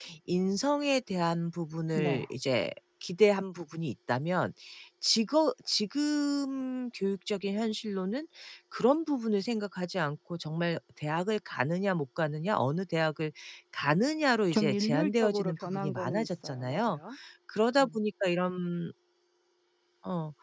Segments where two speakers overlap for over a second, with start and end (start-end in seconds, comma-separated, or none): 14.5-17.0